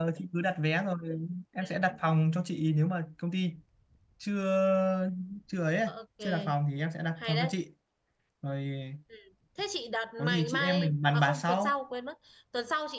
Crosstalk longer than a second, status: present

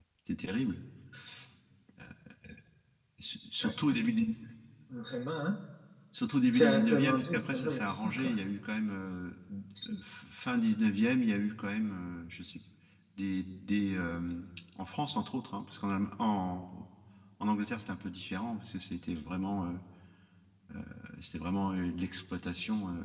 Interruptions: present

